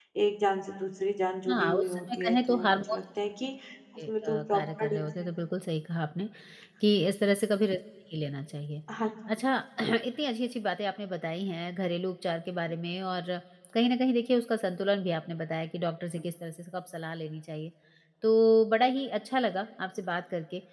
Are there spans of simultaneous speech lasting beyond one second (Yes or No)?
Yes